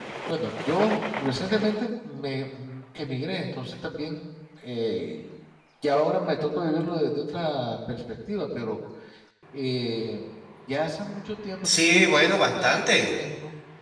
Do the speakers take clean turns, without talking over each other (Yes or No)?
No